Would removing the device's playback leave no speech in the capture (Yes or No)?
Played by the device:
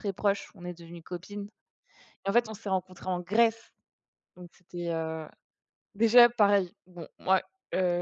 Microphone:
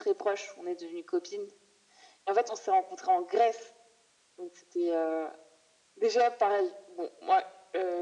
Yes